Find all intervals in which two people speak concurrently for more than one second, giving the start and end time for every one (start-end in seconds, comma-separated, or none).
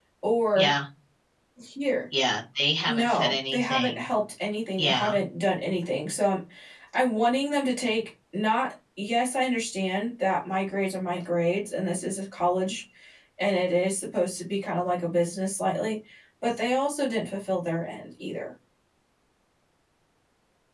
2.9-4.0